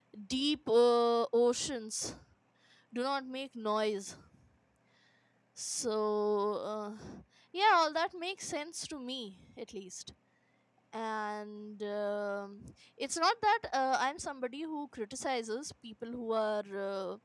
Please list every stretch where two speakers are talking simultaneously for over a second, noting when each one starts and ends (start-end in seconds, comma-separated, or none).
none